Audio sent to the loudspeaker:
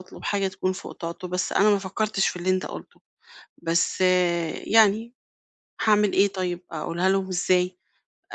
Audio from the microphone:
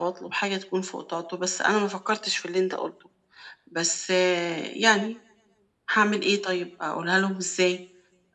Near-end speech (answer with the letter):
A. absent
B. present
A